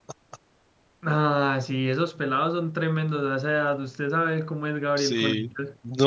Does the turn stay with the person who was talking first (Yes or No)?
No